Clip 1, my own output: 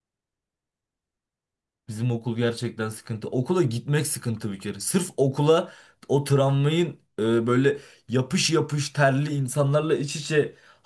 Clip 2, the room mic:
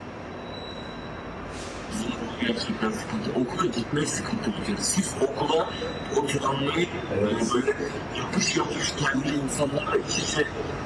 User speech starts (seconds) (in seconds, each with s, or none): 7.1 s